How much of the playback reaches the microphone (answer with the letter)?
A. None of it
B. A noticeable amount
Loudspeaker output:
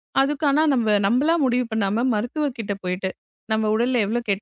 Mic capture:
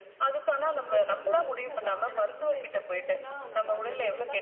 B